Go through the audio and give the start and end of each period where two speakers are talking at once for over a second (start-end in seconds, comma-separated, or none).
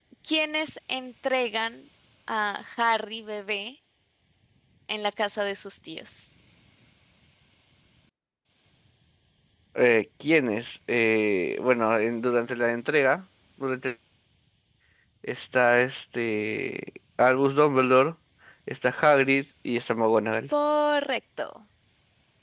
none